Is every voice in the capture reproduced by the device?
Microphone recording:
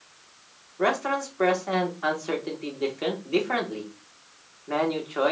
Yes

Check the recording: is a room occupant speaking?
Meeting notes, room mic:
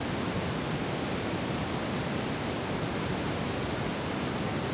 No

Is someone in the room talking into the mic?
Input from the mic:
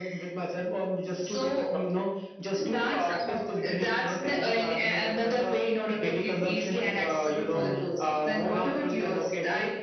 Yes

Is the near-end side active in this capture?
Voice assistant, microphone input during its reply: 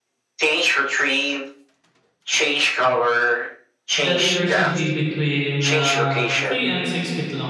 Yes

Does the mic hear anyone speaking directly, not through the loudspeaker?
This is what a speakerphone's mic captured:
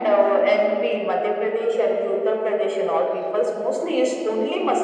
No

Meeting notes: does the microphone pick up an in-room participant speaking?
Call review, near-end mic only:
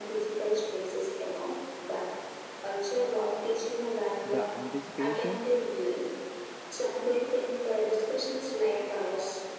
Yes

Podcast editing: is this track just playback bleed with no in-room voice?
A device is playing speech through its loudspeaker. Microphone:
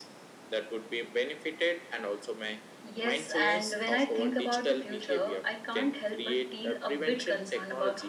No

